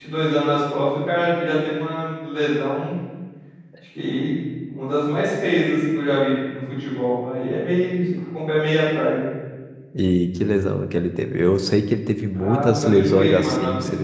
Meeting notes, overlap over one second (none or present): present